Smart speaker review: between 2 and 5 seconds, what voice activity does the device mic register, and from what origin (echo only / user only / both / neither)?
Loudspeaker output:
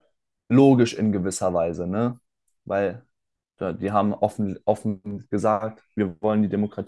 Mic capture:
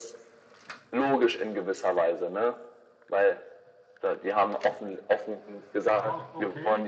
echo only